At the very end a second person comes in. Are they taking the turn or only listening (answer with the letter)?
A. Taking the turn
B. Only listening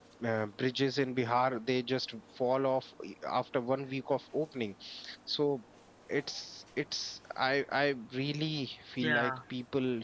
B